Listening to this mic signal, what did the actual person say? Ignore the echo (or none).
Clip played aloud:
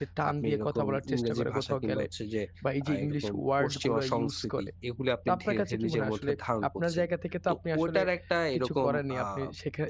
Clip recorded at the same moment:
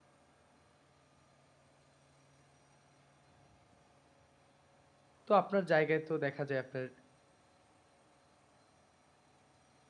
তো আপনার জায়গায় তো দেখা যায় আপনার